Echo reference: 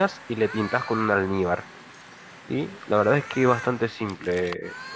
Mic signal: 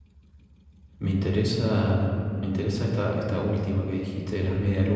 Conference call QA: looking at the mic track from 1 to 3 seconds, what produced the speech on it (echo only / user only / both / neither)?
user only